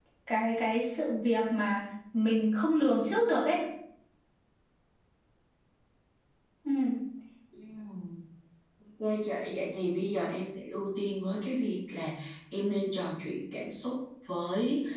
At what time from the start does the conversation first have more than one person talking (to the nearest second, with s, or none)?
none